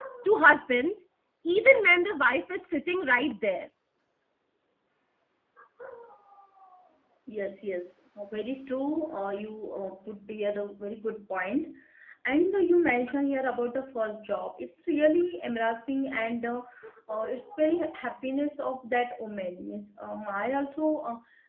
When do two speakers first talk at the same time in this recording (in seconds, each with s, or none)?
none